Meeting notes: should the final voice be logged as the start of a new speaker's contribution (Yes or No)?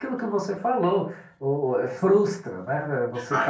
Yes